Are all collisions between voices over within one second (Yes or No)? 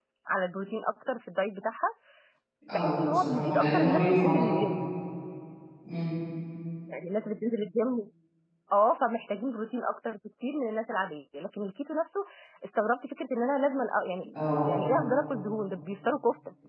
No